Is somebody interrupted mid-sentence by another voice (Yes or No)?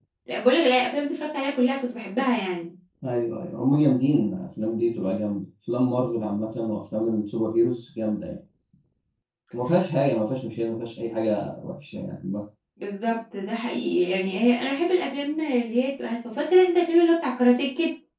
No